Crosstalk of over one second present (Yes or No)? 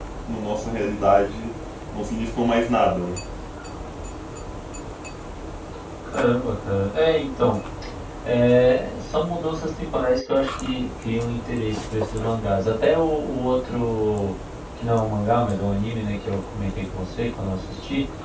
No